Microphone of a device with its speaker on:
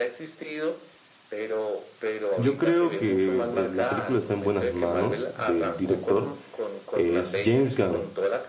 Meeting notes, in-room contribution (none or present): present